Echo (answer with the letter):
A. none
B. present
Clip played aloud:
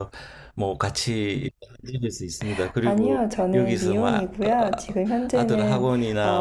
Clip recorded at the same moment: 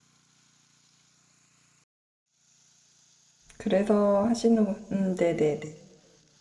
A